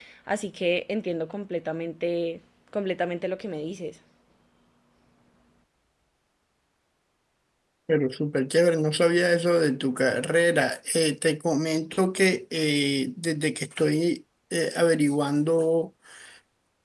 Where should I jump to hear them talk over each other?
none

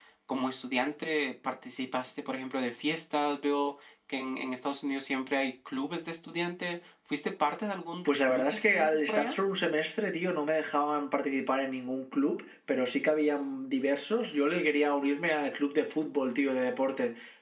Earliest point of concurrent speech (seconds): 8.1 s

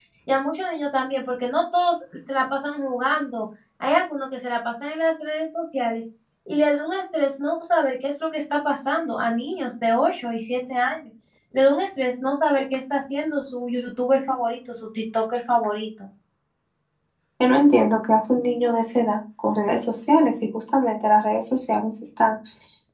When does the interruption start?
none

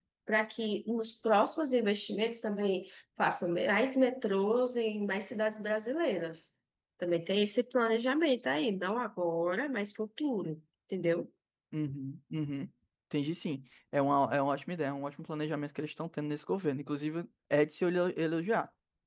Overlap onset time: none

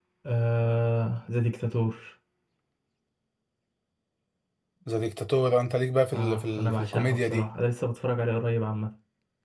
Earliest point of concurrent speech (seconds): 6.1 s

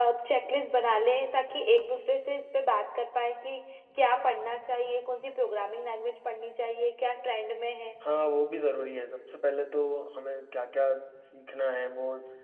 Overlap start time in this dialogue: none

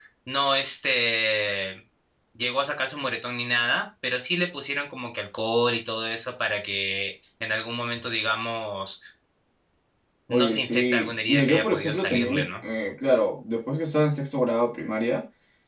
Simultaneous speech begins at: 10.3 s

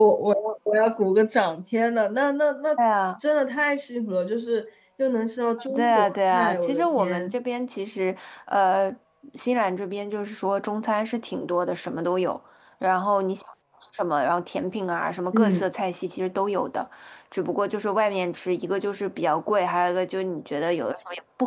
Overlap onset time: 5.7 s

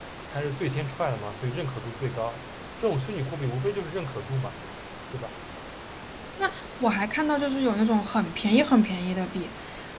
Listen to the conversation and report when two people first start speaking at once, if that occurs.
none

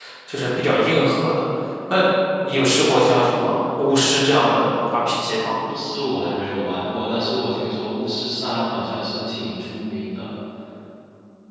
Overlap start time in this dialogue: none

